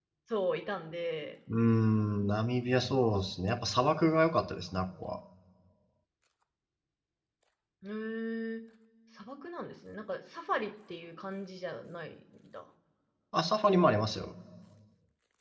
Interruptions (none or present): none